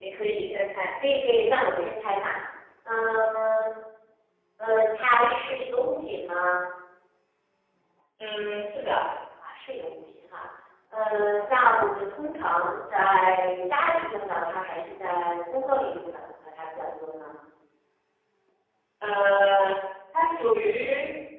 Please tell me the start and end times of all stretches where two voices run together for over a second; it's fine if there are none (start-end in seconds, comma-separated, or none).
none